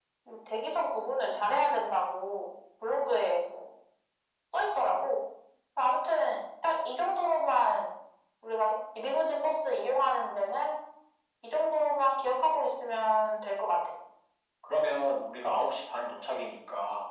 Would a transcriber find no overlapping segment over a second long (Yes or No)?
Yes